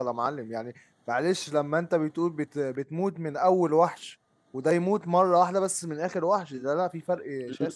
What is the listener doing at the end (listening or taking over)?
taking over